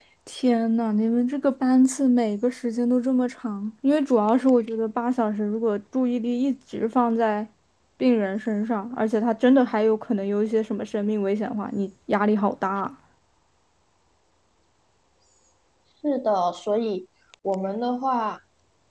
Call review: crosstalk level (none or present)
none